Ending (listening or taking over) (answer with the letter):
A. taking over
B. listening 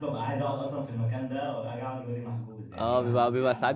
A